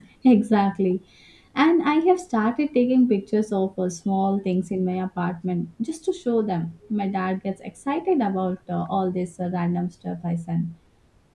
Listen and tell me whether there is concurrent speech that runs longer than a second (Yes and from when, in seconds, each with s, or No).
No